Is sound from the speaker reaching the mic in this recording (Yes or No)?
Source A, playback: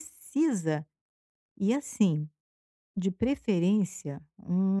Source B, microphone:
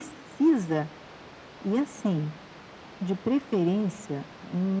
Yes